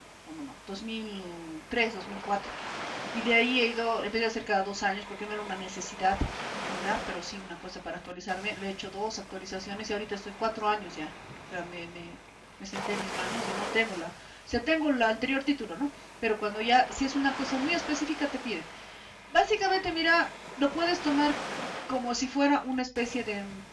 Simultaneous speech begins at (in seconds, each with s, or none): none